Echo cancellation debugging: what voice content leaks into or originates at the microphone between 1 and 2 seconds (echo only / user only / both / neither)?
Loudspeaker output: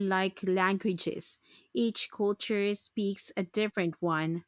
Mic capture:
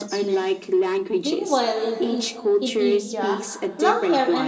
both